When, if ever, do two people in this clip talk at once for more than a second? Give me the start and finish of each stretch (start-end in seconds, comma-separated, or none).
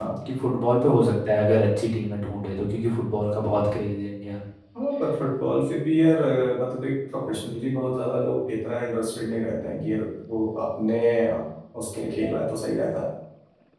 none